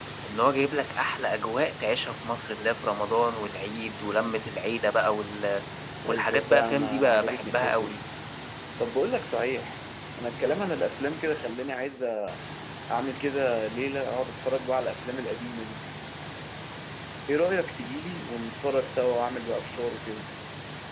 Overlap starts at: 6.1 s

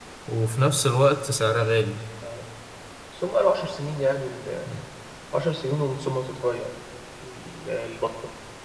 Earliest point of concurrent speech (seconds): none

